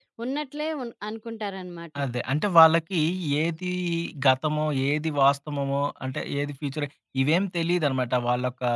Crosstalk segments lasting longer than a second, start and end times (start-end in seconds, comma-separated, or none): none